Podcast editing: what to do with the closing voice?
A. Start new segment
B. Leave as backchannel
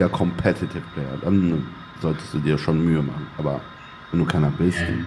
B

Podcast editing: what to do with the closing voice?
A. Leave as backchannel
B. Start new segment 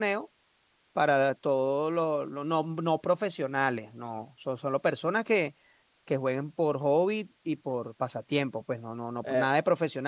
A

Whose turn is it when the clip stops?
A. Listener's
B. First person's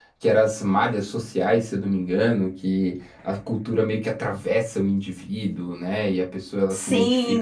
A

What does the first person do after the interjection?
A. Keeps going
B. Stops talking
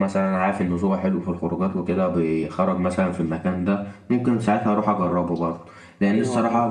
A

